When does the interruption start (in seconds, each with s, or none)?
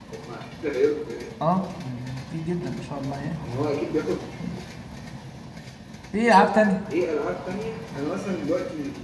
none